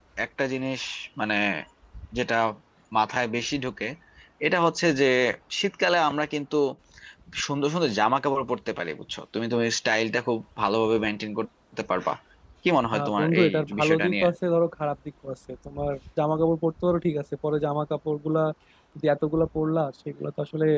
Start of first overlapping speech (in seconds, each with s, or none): 12.9 s